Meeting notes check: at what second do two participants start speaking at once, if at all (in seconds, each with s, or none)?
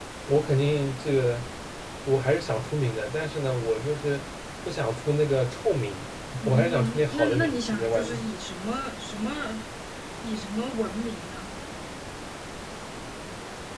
6.4 s